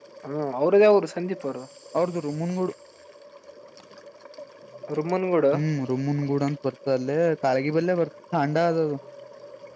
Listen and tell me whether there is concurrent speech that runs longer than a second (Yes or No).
No